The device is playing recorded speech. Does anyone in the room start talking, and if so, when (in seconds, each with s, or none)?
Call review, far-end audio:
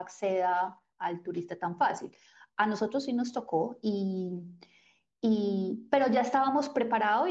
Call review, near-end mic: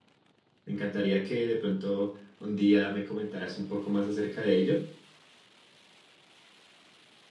0.6 s